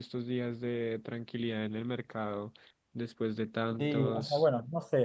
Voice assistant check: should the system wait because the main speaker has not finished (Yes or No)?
No